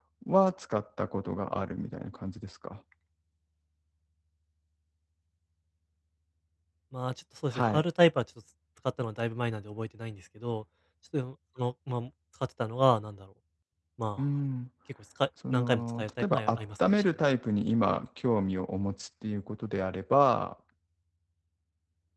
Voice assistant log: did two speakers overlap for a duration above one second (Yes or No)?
Yes